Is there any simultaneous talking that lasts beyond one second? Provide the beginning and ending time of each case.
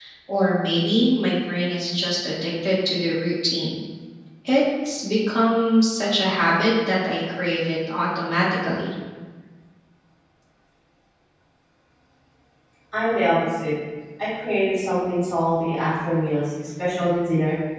none

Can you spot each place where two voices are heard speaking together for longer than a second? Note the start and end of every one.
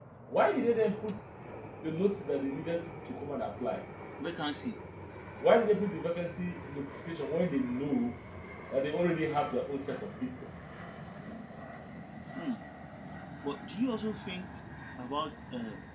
none

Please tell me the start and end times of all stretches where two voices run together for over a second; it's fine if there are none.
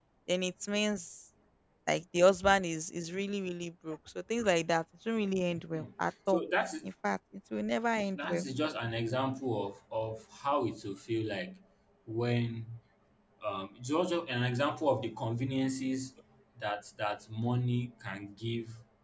none

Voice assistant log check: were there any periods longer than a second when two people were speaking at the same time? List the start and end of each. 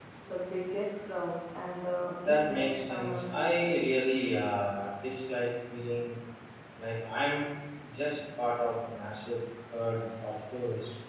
2.2-3.5

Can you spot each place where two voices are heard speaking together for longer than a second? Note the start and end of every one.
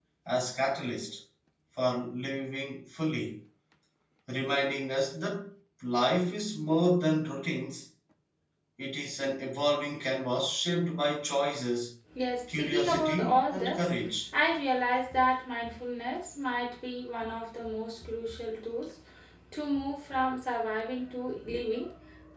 12.5-14.1

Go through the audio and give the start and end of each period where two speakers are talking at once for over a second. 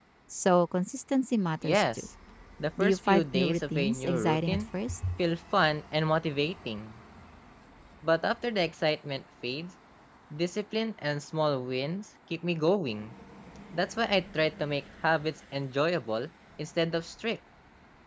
2.8-4.6

